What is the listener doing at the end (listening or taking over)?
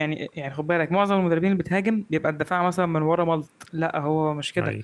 listening